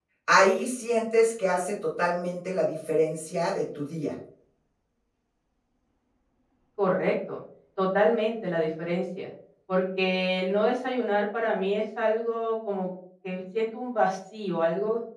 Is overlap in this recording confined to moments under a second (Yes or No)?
Yes